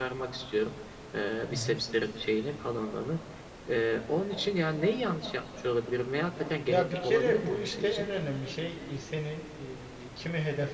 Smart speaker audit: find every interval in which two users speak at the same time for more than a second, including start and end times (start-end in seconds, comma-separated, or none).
6.7-8.1